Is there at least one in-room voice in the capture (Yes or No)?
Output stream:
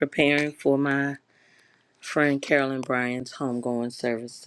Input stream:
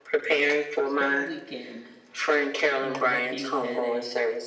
Yes